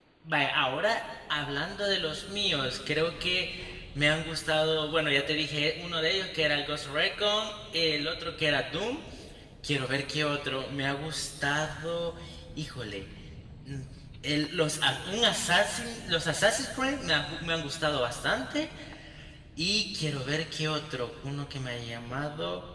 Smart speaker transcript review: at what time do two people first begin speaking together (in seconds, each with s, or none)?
none